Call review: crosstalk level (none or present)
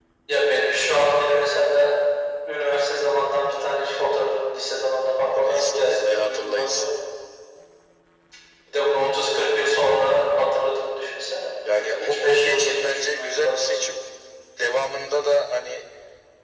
present